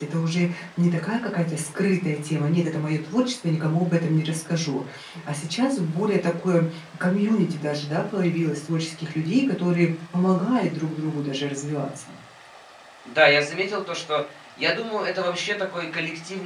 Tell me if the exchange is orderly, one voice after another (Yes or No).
Yes